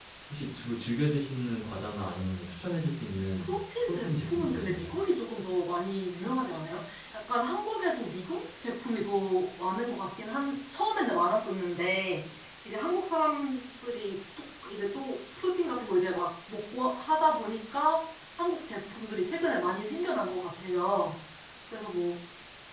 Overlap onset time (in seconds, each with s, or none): 3.4 s